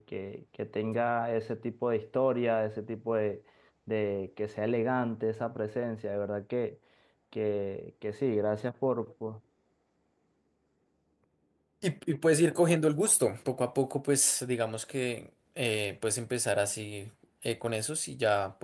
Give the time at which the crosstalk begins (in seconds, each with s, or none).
none